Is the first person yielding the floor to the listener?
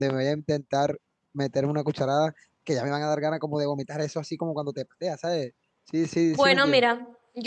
Yes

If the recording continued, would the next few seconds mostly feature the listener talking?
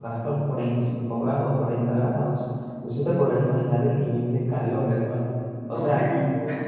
Yes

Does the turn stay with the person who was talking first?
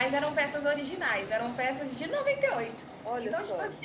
Yes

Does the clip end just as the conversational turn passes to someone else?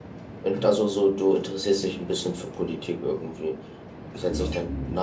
No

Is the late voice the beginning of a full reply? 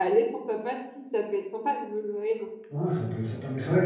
Yes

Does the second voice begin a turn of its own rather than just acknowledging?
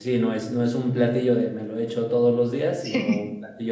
No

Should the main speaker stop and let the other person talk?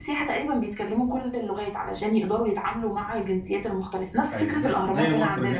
Yes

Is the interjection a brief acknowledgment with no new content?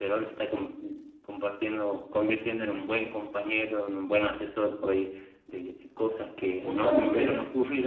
Yes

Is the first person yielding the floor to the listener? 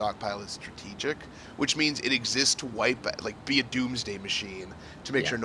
No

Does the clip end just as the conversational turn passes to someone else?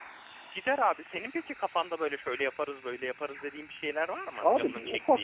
Yes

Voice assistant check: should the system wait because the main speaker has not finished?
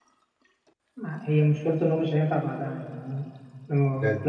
Yes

